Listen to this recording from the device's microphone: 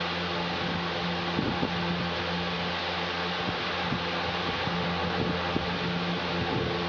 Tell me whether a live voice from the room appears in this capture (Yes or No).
No